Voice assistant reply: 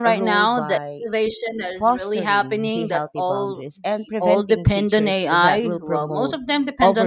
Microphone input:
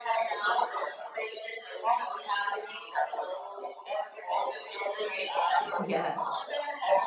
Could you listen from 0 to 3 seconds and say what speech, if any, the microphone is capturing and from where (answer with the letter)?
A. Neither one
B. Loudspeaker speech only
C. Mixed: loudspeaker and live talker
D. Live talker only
B